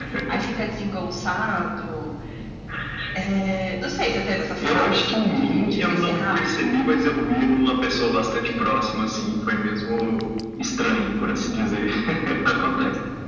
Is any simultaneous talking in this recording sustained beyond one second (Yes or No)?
Yes